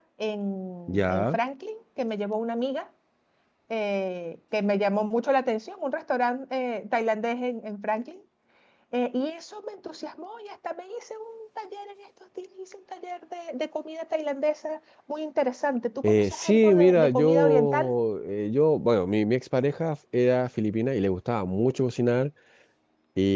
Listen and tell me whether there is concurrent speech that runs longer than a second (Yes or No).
Yes